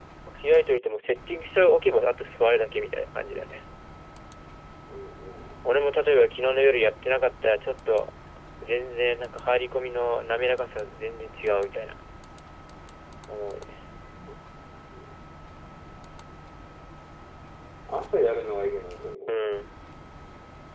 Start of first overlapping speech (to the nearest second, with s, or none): none